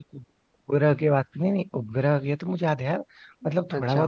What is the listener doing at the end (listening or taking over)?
listening